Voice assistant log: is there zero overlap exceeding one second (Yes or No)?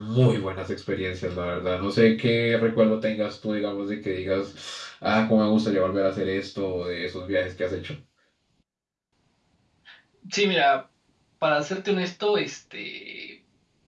Yes